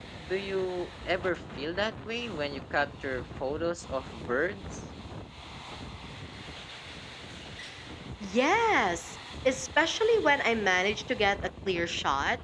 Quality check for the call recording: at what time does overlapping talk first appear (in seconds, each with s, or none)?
none